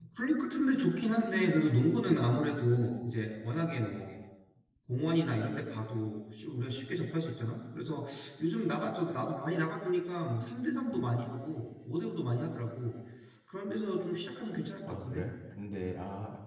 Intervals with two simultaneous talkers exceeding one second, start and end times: none

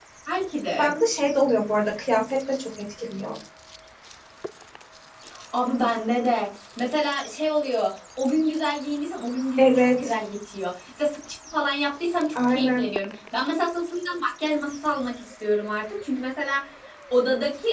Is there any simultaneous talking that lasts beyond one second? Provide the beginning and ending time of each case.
none

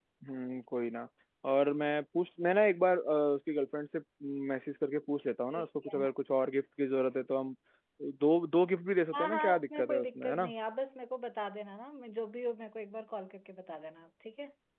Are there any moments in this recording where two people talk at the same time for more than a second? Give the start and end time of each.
9.1-10.5

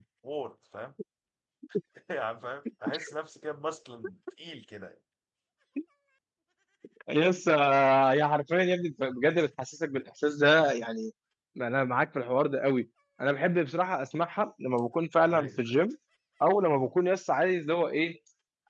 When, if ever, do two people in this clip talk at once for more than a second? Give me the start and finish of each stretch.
none

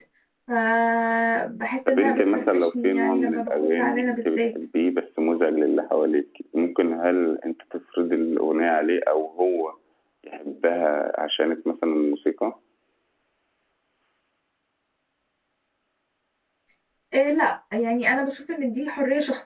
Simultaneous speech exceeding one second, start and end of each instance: 1.9-4.4

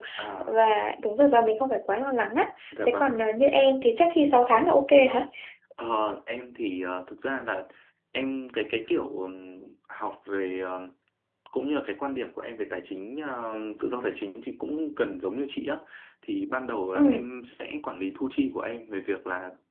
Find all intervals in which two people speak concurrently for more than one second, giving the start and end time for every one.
none

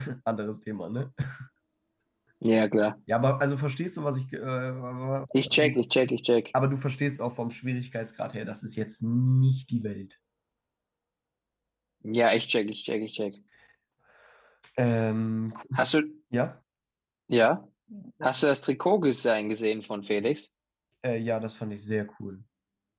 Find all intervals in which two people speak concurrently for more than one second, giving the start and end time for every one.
none

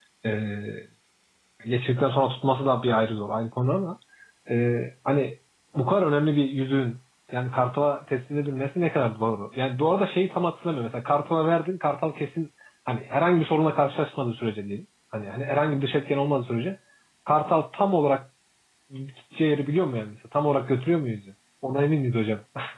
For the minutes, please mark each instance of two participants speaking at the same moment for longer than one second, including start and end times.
none

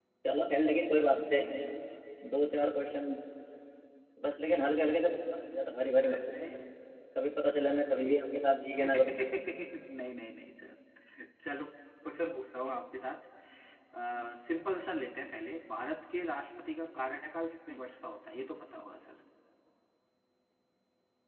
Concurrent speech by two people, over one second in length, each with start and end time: none

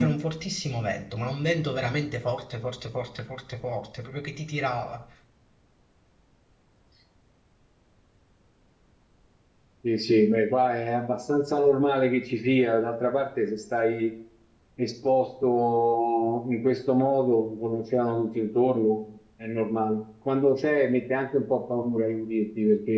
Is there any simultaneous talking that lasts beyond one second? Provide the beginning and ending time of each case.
none

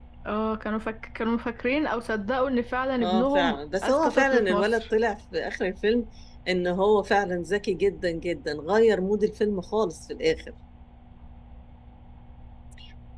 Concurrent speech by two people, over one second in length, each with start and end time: 3.0-4.7

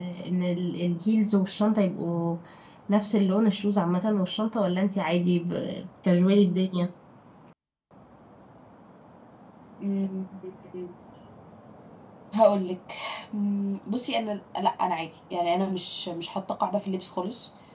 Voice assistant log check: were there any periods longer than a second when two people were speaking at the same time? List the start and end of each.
none

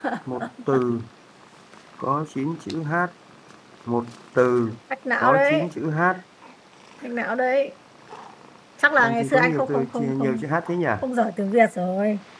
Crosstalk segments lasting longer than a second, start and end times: 9.0-10.4

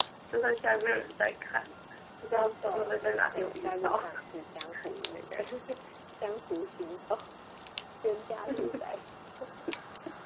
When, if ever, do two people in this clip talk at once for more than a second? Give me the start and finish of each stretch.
2.3-4.0

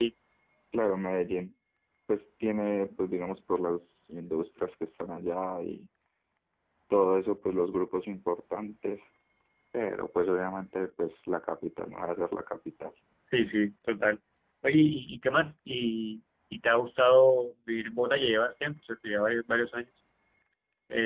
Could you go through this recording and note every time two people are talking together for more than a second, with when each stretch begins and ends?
none

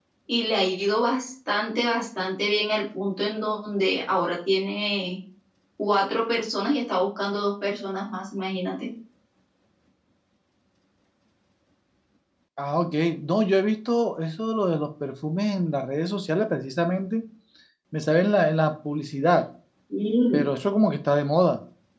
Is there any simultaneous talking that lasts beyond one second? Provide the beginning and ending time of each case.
none

